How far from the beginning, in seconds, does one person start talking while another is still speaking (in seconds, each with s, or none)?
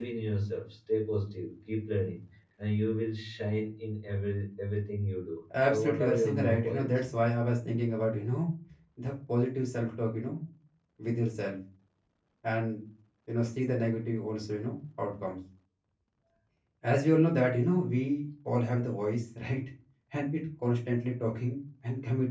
5.5 s